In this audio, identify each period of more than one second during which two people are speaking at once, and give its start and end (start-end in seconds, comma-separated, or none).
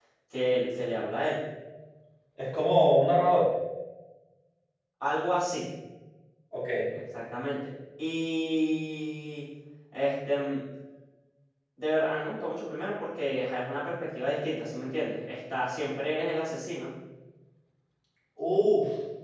none